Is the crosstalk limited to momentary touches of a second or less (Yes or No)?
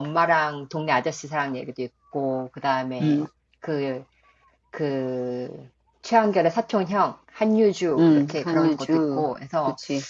No